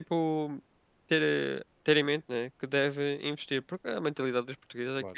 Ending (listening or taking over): listening